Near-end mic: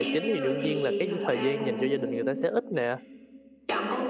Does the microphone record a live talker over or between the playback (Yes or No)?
Yes